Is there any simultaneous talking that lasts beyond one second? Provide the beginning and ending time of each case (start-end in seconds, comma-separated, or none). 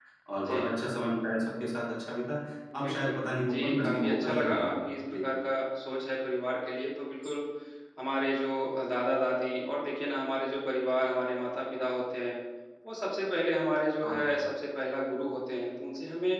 2.8-5.2